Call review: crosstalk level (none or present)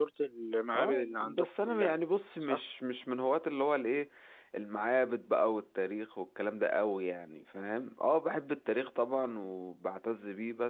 present